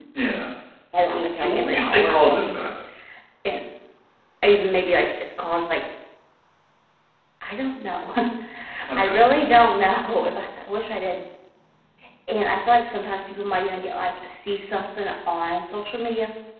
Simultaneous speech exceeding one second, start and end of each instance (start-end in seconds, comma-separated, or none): 1.3-2.6